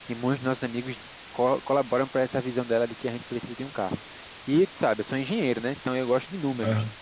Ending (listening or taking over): listening